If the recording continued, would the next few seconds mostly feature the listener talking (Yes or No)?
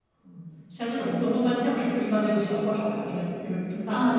Yes